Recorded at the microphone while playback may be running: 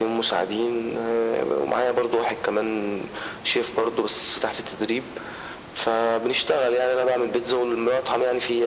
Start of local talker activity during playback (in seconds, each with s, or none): none